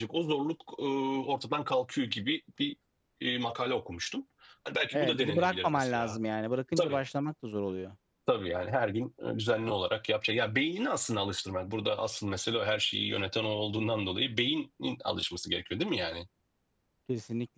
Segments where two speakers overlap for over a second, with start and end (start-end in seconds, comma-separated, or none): 4.9-6.2